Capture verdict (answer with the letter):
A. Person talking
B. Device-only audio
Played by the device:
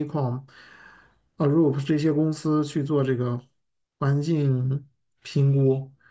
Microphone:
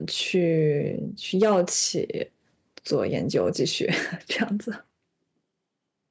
A